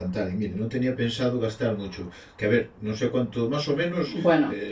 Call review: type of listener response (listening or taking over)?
listening